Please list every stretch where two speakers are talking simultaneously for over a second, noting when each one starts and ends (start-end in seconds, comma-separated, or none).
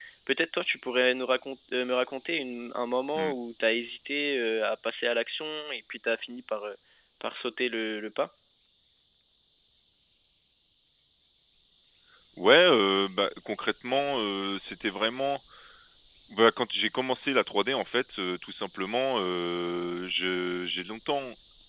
none